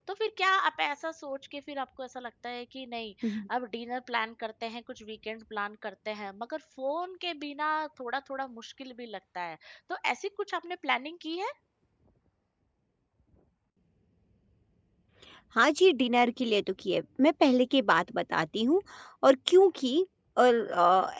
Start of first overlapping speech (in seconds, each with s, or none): none